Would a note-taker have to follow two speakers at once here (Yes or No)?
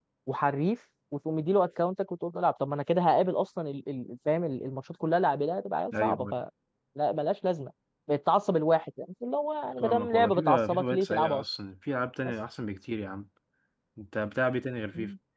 Yes